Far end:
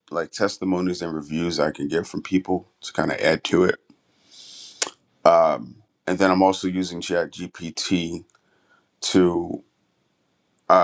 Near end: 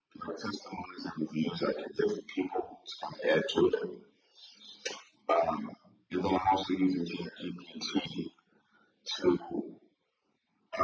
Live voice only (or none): none